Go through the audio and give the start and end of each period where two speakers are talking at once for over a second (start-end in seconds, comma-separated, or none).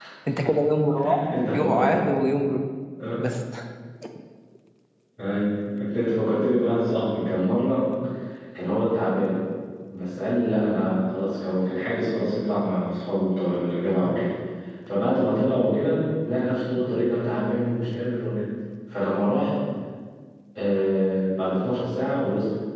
none